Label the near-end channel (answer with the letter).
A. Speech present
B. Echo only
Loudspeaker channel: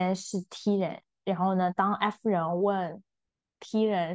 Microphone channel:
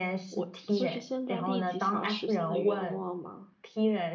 A